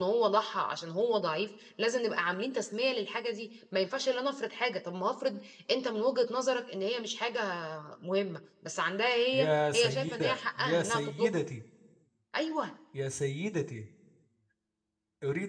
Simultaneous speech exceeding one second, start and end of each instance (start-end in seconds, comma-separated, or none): 9.3-11.4